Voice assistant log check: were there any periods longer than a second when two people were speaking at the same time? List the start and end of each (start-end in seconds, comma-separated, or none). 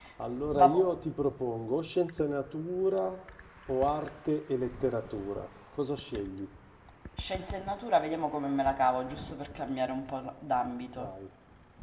none